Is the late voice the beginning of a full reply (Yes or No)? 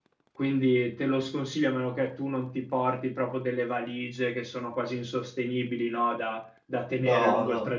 No